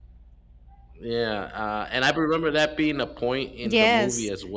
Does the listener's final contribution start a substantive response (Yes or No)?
Yes